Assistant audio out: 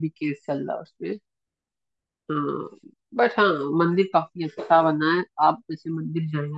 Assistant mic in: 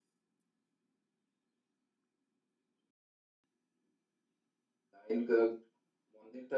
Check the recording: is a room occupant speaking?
Yes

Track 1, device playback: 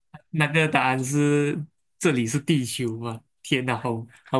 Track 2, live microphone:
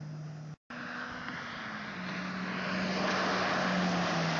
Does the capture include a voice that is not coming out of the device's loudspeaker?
No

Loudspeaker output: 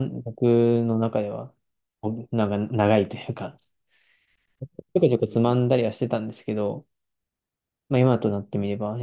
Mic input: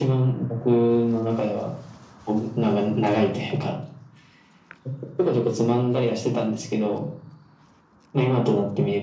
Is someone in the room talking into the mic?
No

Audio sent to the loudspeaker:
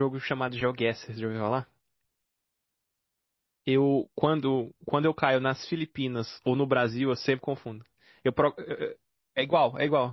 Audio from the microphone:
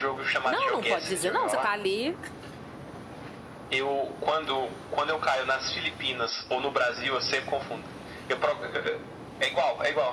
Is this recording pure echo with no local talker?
No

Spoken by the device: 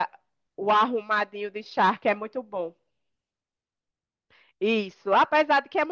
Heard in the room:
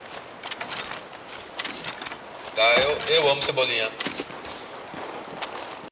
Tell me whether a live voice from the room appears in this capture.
Yes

